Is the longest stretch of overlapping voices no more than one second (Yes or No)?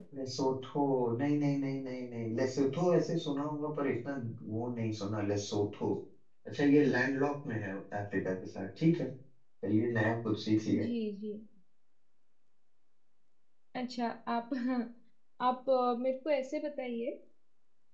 Yes